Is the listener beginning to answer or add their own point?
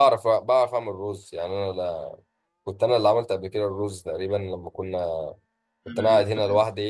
No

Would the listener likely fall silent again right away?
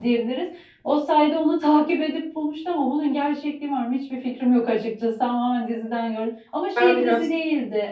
Yes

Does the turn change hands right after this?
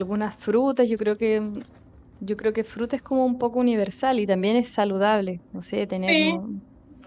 No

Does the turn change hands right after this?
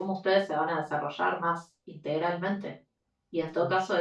No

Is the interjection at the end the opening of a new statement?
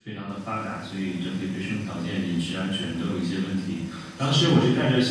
No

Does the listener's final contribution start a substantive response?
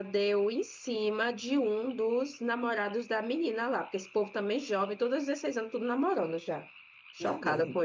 Yes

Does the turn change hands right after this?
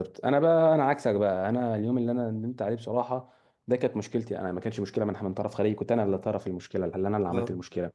No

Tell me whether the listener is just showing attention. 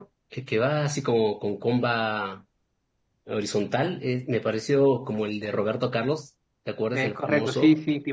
No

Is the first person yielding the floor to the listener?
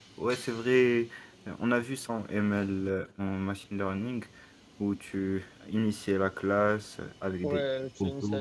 Yes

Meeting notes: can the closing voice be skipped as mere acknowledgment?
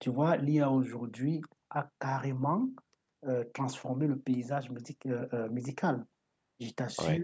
Yes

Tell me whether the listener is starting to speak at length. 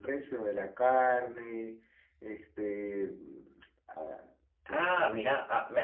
Yes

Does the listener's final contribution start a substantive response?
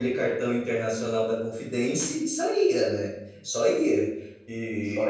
No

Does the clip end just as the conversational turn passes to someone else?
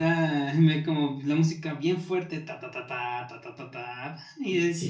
Yes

